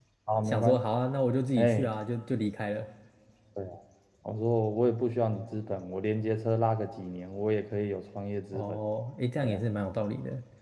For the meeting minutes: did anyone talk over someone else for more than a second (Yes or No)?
No